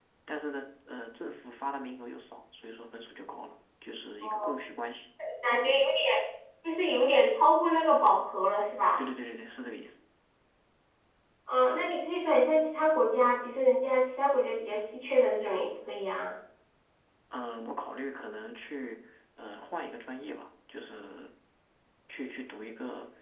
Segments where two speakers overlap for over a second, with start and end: none

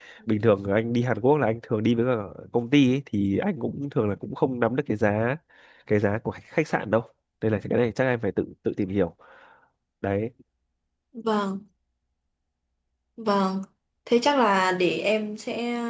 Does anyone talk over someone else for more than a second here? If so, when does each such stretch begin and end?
none

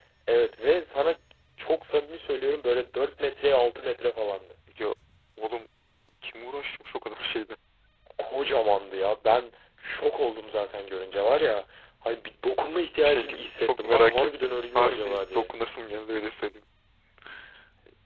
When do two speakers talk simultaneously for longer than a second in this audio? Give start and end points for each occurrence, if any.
12.9-15.5

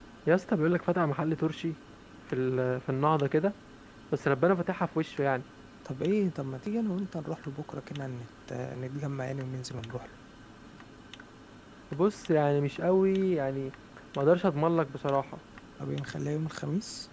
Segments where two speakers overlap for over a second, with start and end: none

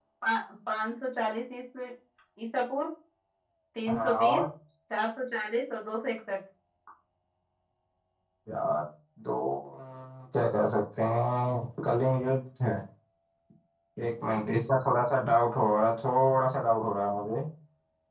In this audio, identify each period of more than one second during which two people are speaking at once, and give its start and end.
none

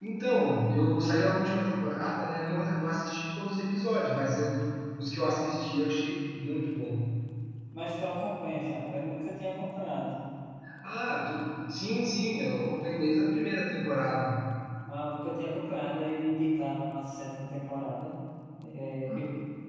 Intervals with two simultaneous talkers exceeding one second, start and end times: none

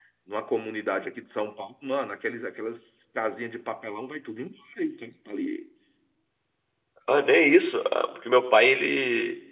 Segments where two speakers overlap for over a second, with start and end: none

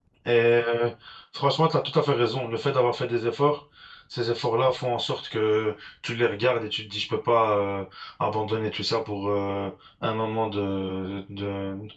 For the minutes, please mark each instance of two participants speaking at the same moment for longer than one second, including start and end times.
none

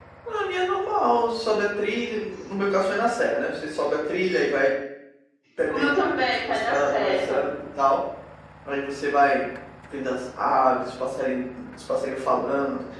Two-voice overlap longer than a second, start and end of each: 5.7-7.4

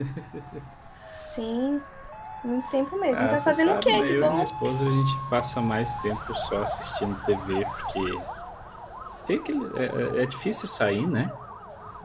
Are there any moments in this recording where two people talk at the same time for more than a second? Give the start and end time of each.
3.1-4.5

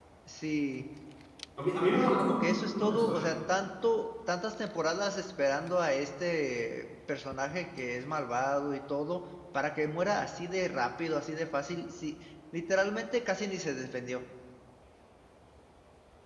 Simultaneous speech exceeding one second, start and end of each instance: 1.9-3.3

